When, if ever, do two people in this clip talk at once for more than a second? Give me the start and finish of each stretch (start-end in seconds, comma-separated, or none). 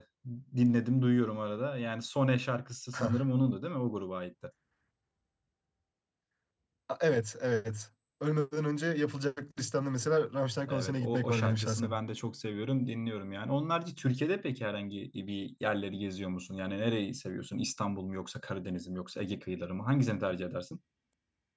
10.7-11.9